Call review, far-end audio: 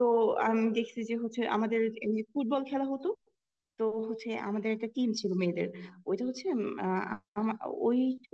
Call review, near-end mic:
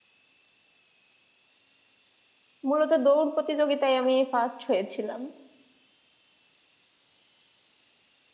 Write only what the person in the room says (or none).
মূলত দৌড় প্রতিযোগিতায় আমি ফার্স্ট হয়েছিলাম